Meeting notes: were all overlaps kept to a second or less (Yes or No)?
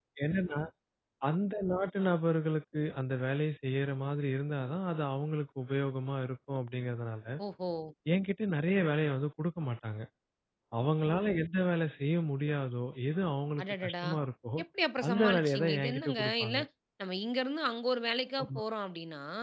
No